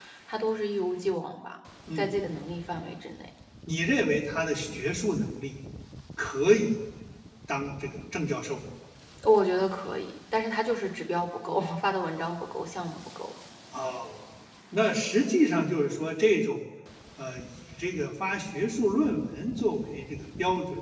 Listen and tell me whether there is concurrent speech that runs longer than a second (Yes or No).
No